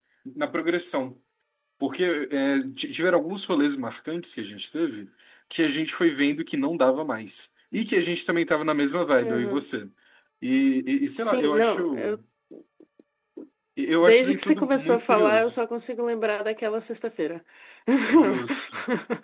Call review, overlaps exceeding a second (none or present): present